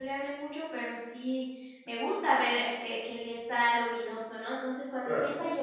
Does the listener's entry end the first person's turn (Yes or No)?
No